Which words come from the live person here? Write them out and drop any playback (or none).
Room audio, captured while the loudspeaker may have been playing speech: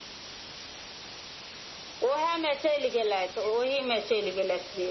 none